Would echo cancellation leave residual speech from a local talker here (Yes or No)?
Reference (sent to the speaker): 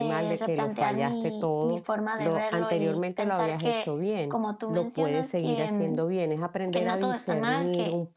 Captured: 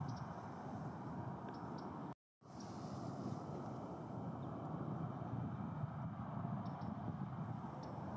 No